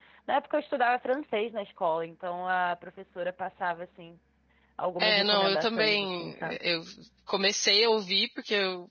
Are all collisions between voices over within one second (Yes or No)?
No